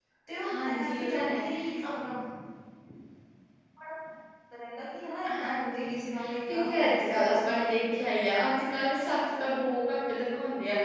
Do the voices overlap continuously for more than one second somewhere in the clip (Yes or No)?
Yes